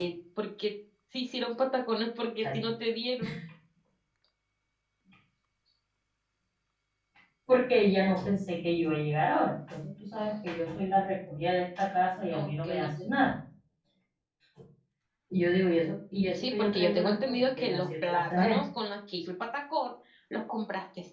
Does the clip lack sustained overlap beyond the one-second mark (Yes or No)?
No